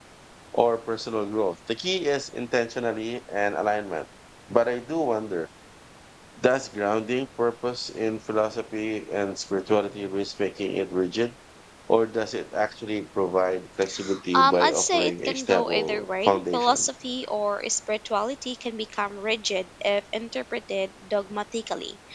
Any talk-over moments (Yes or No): Yes